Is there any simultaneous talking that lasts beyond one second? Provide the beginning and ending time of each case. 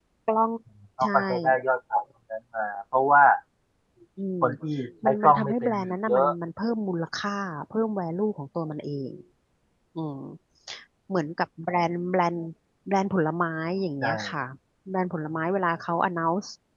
5.0-6.3

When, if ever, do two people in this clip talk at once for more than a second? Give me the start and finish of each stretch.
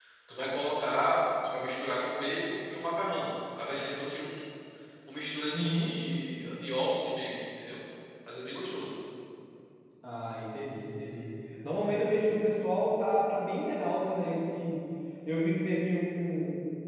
none

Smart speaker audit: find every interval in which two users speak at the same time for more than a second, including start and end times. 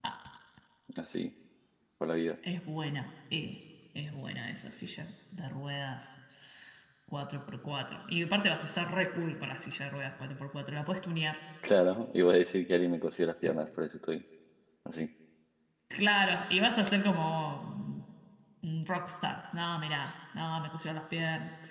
none

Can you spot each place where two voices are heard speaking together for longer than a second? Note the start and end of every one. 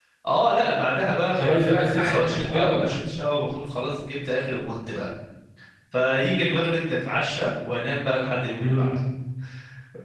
1.3-2.8

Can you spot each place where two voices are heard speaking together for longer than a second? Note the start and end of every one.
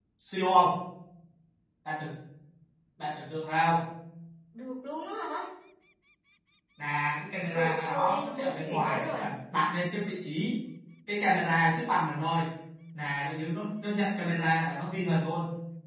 7.5-9.2

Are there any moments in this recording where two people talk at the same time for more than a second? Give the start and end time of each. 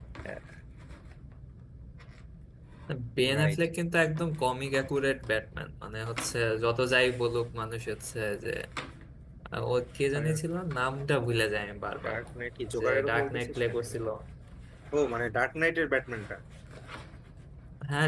12.8-14.1

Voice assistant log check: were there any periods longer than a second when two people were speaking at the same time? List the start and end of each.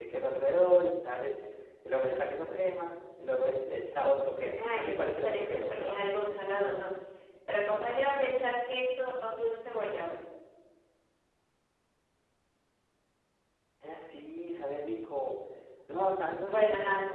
4.5-6.1

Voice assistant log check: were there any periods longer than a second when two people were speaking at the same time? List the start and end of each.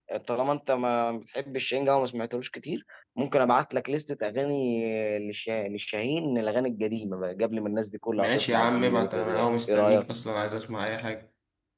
8.2-10.0

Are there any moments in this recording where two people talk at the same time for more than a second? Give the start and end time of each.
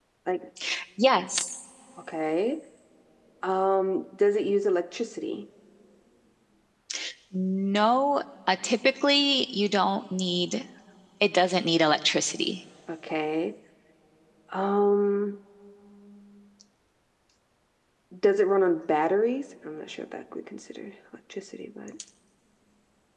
none

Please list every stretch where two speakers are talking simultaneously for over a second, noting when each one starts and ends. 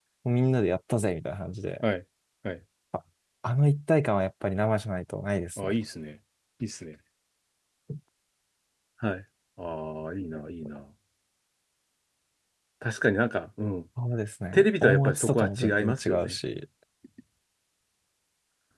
14.5-16.4

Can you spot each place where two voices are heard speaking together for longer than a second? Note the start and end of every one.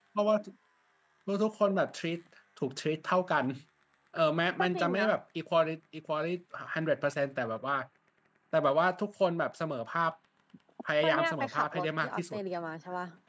11.0-12.4

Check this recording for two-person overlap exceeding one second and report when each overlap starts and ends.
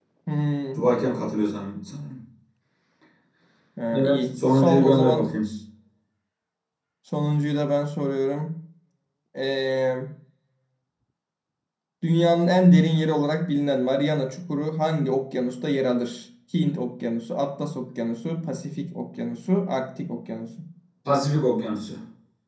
4.0-5.5

